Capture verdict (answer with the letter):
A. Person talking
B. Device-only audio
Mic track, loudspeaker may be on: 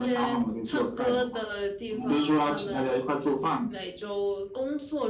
B